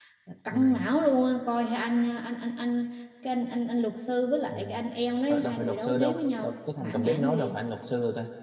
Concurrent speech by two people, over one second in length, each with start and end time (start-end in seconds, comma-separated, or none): 5.3-7.5